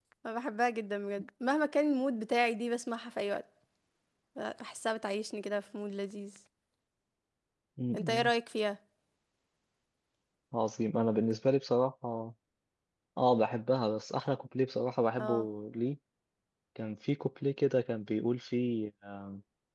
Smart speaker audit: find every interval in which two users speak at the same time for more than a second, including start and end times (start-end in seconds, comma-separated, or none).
none